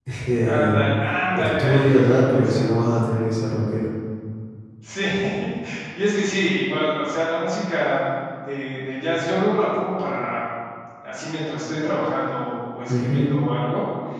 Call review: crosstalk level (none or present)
present